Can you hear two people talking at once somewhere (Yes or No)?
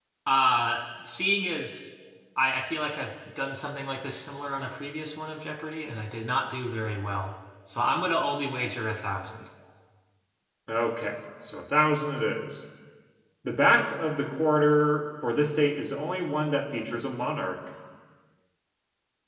No